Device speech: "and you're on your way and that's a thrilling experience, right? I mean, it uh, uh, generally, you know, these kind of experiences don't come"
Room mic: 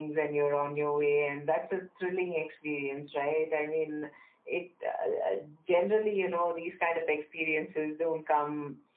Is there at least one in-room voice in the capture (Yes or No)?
No